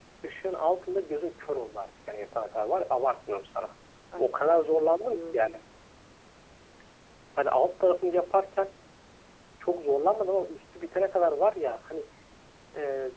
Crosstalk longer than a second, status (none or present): present